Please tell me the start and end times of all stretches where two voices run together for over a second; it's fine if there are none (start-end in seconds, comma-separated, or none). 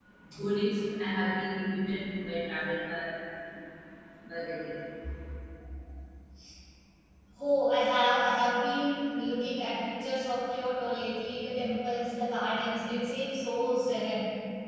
none